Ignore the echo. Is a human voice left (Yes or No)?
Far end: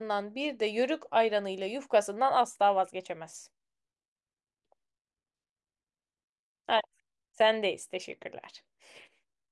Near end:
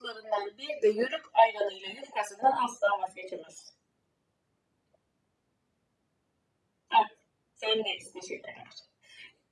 No